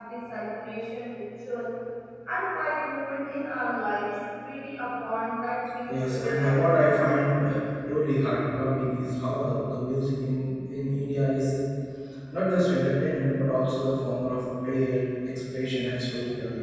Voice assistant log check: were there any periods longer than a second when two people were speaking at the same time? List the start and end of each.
5.9-7.5

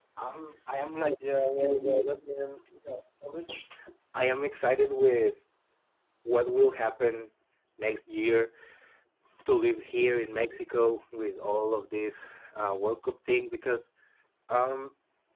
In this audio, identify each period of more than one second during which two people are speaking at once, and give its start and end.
none

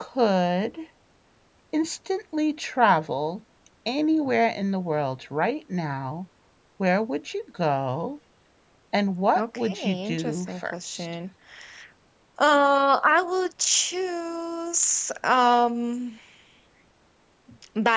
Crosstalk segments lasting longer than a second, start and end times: 9.3-11.1

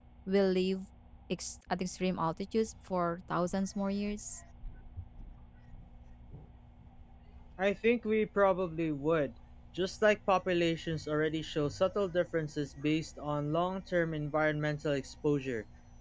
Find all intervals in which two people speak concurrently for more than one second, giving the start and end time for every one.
none

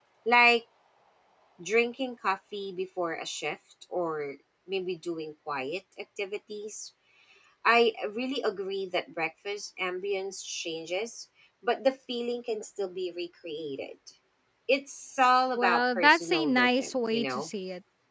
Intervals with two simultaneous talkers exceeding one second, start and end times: 15.6-17.5

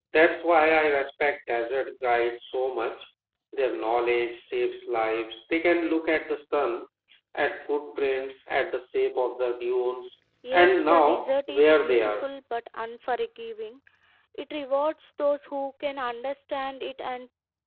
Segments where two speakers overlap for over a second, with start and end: 10.5-12.3

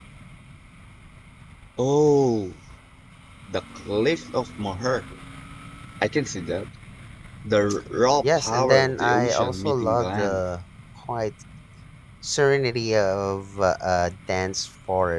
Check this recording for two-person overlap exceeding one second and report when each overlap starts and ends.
8.4-10.4

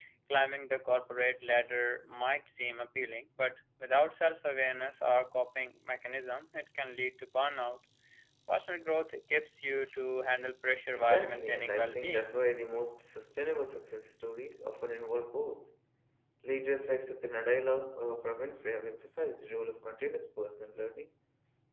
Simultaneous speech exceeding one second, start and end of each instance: 10.9-12.3

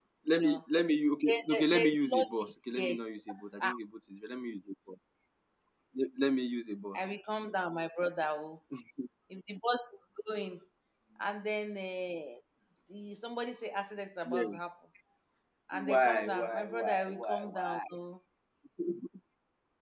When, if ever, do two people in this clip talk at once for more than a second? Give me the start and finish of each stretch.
1.3-3.0, 15.7-17.8

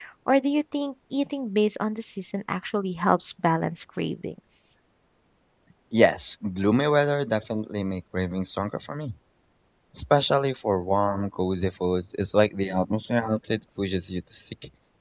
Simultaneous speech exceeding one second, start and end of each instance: none

